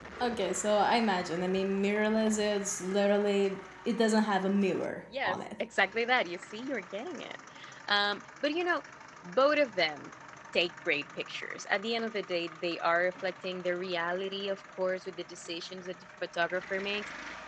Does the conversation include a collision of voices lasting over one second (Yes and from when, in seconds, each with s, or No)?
No